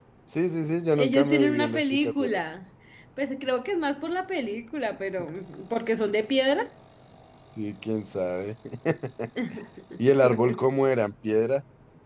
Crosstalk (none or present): present